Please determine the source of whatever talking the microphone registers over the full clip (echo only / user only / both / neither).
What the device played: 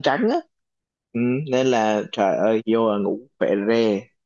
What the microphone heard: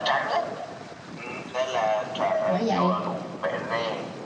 both